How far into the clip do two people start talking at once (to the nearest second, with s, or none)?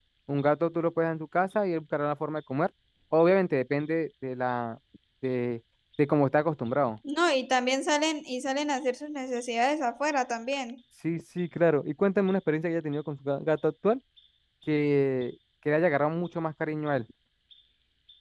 none